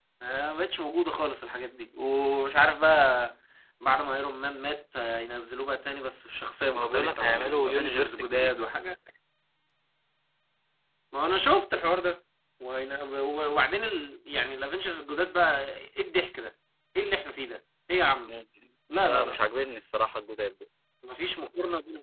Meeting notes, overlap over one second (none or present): present